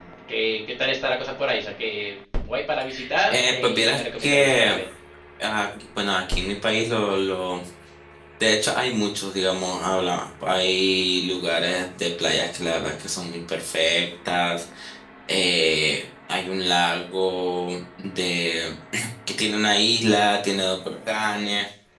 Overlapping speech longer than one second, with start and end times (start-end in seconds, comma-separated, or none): 3.3-4.8